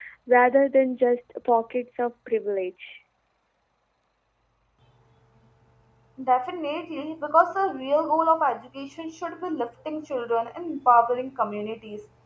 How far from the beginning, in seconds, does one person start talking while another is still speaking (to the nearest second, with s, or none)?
none